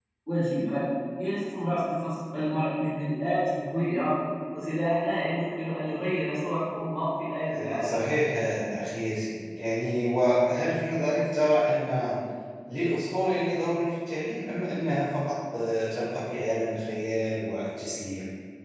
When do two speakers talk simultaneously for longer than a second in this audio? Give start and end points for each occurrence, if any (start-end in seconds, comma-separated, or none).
none